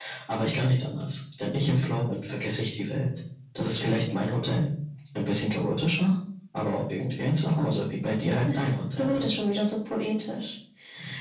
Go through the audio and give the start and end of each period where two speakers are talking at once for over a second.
none

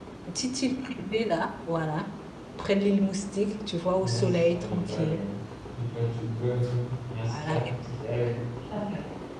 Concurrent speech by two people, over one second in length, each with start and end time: 4.0-5.2

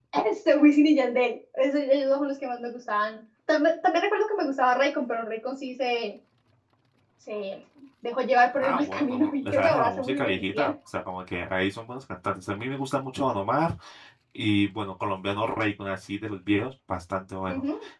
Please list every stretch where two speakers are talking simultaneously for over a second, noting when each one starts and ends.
8.6-10.7

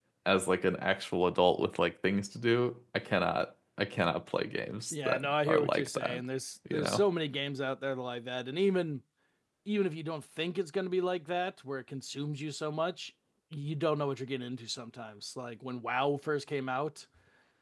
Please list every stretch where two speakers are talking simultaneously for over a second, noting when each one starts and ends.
4.9-6.2

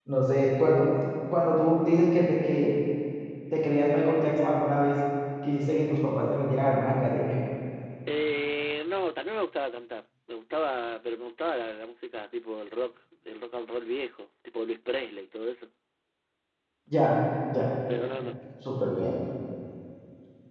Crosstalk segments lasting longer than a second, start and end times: none

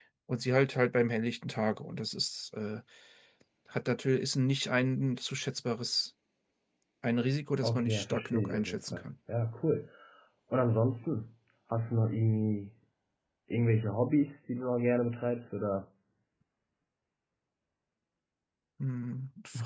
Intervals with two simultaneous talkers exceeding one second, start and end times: 7.6-9.0

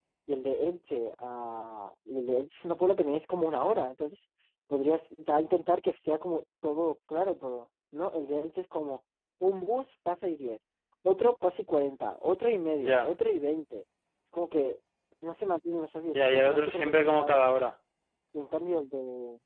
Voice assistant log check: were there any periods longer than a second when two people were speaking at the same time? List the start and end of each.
16.1-17.4

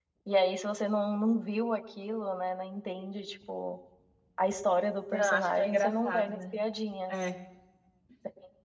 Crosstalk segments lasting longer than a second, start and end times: 5.1-6.4

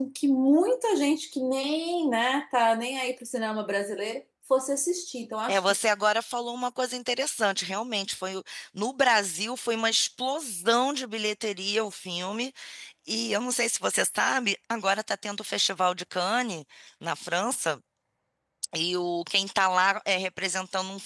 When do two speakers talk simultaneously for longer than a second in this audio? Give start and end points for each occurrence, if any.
none

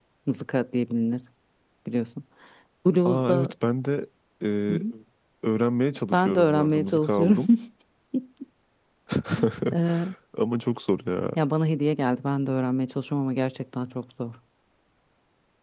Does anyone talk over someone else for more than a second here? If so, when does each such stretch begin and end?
6.1-7.4

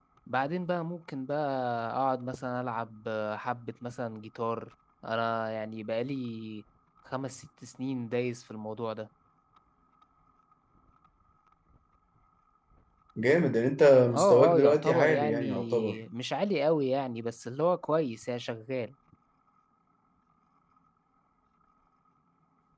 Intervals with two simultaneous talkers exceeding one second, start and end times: 14.1-16.0

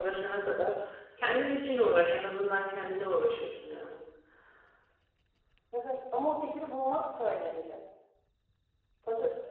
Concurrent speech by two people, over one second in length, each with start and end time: none

